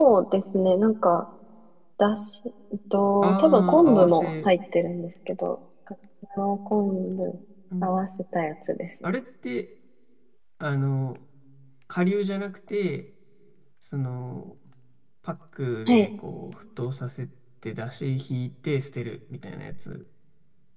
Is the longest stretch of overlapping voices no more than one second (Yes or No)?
No